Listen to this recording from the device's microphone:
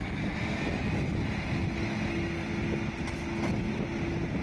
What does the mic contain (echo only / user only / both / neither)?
neither